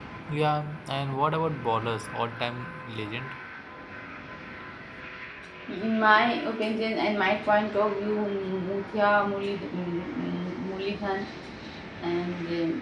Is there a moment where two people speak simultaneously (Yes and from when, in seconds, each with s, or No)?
No